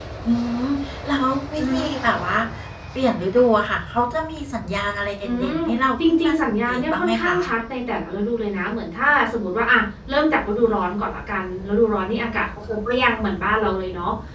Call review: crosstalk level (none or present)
present